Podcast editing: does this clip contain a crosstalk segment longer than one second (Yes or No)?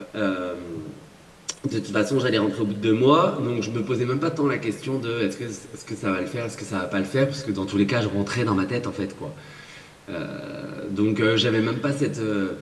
No